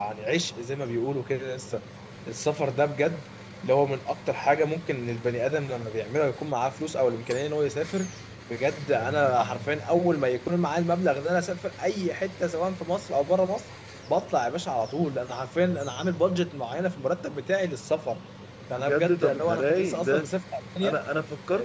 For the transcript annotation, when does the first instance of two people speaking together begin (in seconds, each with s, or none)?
18.7 s